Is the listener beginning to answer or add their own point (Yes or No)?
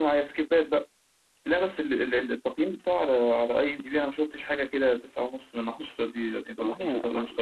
Yes